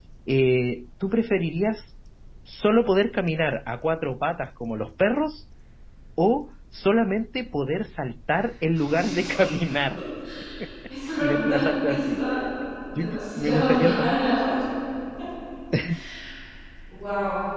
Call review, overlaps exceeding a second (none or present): present